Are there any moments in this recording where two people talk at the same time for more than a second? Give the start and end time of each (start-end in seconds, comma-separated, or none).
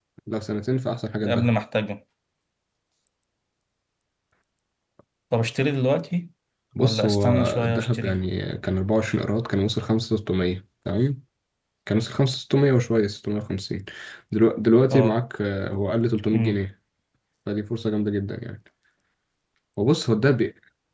6.8-8.2